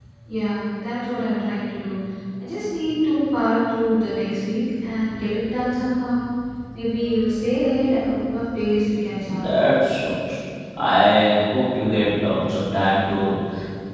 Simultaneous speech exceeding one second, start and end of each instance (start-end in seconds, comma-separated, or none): none